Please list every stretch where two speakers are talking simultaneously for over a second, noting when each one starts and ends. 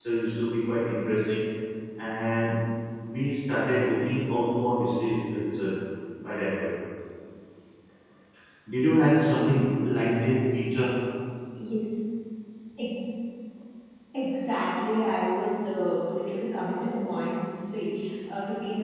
none

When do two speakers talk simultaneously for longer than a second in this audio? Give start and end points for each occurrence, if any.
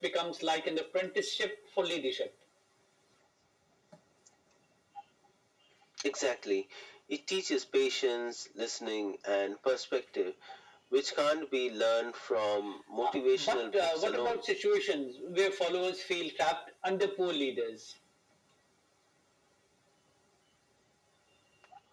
13.0-14.4

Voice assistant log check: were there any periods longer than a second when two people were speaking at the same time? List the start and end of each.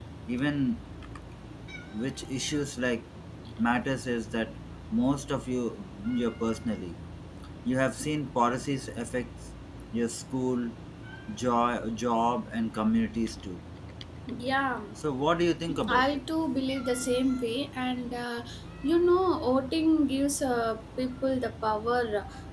none

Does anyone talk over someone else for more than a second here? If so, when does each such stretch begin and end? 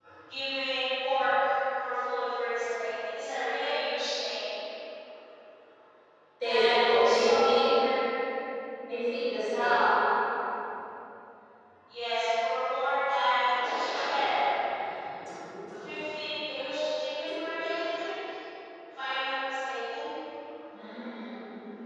6.4-7.7

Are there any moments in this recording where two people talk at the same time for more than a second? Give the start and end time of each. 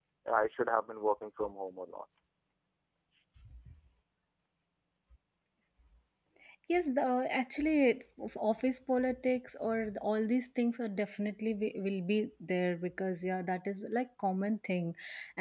none

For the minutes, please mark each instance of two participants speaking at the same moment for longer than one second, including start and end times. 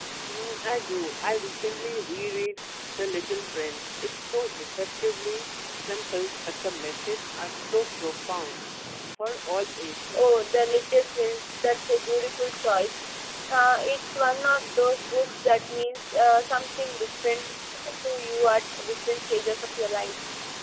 none

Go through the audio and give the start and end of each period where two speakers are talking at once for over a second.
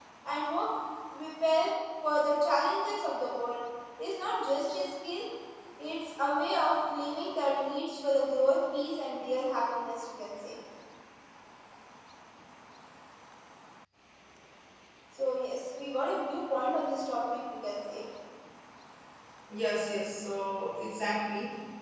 none

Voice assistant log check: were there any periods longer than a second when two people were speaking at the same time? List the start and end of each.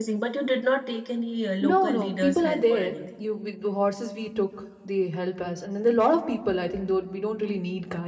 1.6-2.9

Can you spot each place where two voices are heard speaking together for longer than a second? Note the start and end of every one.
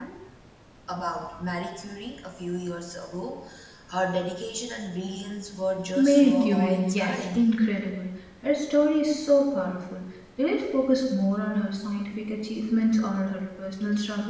6.0-7.5

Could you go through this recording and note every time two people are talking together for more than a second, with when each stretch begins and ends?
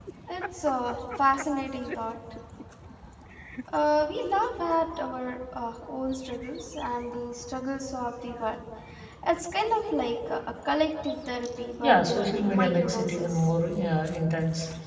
11.8-13.5

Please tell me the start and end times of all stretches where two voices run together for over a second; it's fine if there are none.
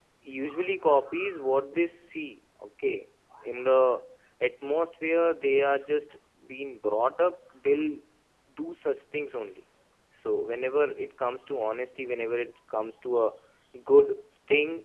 none

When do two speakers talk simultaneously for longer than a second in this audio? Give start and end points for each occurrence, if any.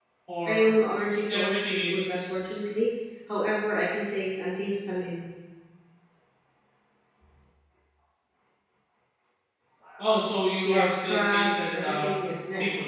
1.3-2.6, 10.6-12.1

